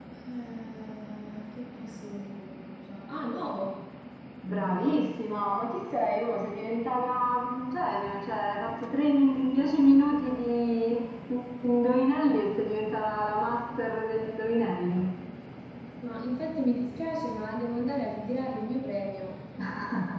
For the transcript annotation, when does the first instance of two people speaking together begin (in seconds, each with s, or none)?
none